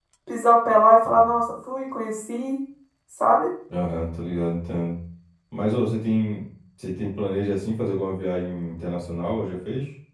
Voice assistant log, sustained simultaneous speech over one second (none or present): none